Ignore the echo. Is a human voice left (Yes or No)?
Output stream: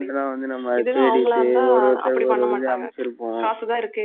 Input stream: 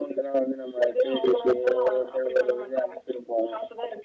No